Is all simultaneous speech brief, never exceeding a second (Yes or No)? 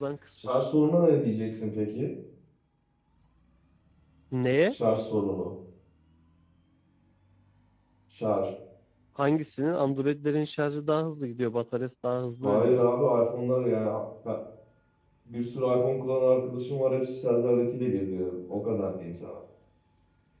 Yes